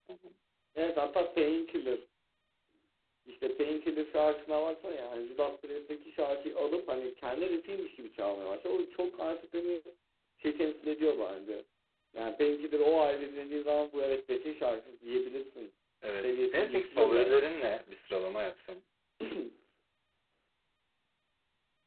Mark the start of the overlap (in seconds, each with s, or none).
16.0 s